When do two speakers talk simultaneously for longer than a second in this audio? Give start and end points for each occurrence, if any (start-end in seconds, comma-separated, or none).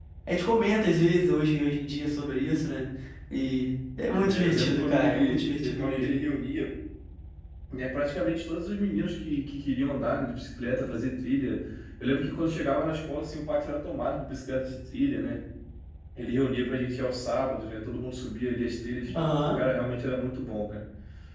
4.1-6.1